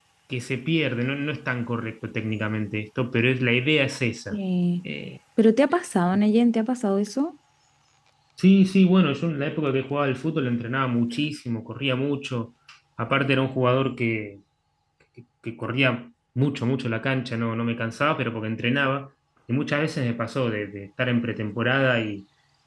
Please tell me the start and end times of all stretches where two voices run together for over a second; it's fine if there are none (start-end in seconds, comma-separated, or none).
none